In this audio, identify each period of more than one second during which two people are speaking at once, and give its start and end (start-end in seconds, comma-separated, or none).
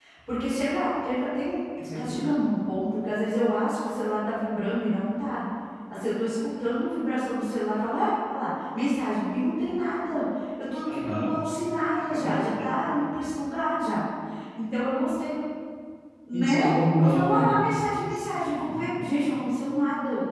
none